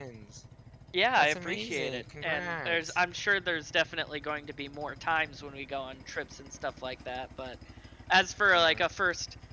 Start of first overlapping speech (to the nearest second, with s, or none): 1 s